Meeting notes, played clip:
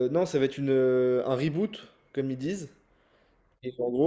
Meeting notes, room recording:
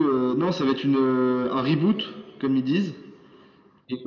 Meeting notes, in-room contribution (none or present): none